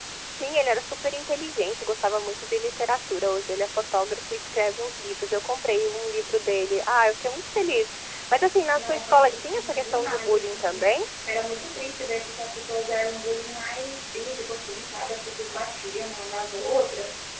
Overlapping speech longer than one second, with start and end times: 8.8-10.9

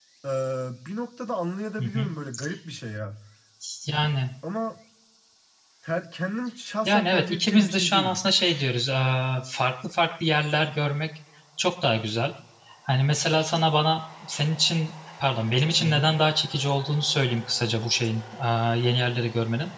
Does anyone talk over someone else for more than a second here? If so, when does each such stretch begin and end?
6.8-8.2

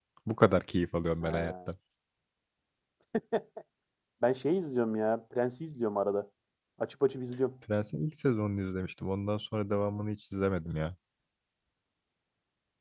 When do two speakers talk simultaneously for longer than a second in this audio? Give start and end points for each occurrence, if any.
none

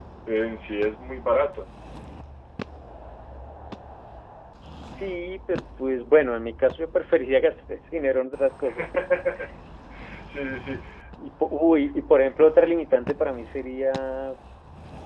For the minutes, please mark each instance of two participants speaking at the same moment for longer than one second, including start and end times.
none

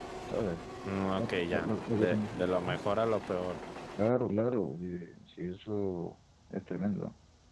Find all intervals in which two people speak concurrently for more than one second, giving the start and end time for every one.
1.2-2.8

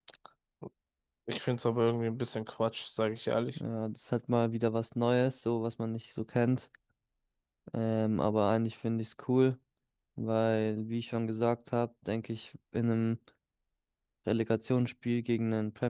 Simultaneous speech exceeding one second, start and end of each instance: none

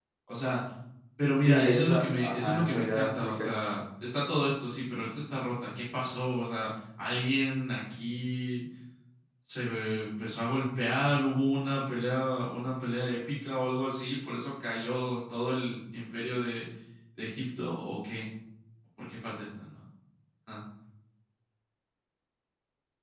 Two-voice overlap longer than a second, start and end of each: 1.4-3.5

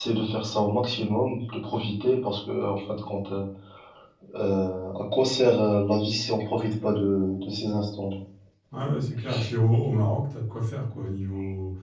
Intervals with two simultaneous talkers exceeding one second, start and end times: none

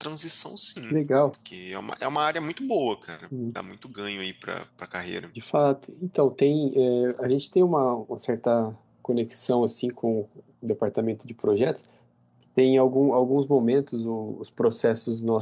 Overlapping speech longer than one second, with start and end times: none

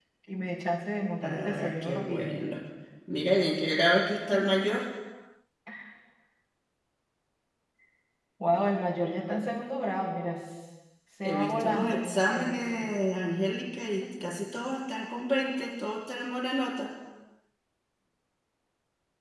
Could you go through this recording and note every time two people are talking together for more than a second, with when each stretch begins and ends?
1.2-2.5, 11.2-12.8

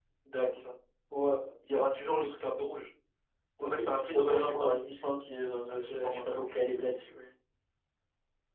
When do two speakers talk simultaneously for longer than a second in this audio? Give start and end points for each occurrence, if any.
3.6-5.0, 5.7-7.0

